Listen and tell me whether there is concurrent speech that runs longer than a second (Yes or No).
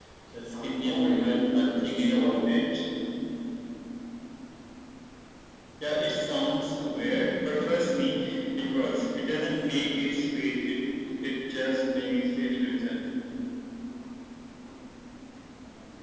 Yes